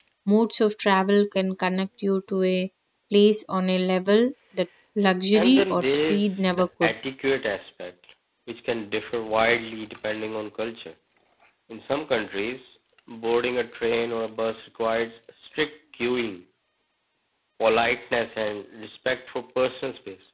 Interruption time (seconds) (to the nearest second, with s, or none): 5 s